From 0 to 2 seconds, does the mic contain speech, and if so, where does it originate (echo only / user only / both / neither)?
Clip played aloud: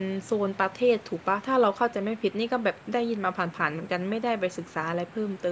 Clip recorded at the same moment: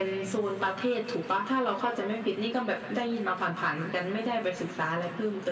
echo only